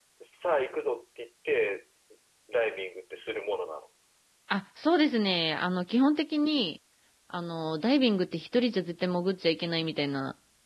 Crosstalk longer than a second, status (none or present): none